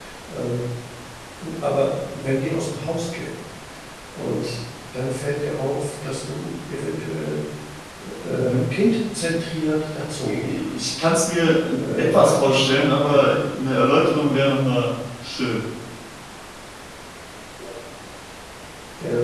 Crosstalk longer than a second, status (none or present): present